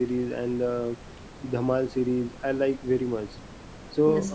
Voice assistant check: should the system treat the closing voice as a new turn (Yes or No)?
Yes